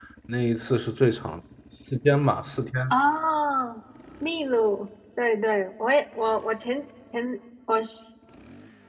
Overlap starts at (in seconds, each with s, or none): none